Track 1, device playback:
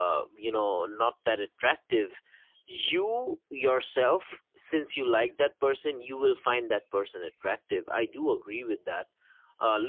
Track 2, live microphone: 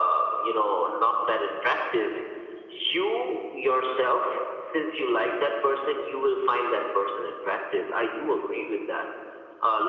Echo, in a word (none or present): present